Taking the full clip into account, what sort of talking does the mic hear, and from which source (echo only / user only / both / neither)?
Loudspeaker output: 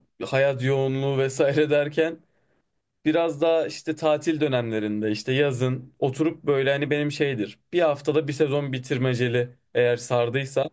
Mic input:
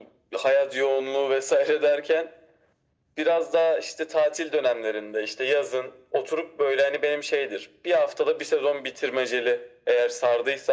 echo only